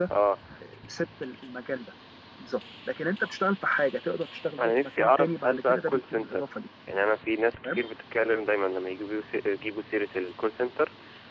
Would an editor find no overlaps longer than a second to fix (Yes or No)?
No